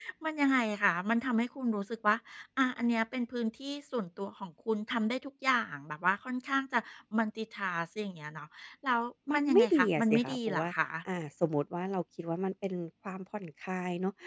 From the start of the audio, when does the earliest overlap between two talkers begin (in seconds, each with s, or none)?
9.3 s